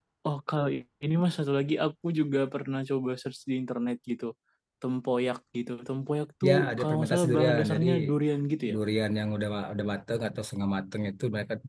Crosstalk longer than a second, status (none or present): present